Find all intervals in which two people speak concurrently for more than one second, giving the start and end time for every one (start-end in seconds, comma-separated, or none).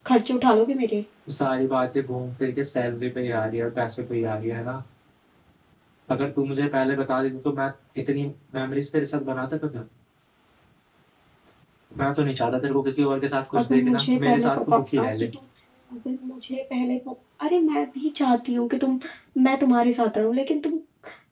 13.5-15.1